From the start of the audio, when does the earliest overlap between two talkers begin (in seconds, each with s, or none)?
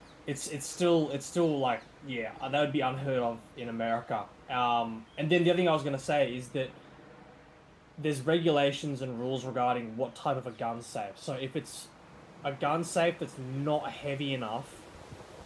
none